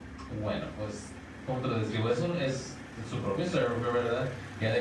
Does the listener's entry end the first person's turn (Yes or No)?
No